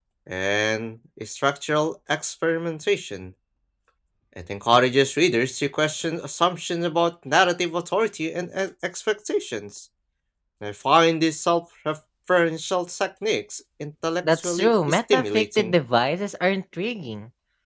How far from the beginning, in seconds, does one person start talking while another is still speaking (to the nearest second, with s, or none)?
14 s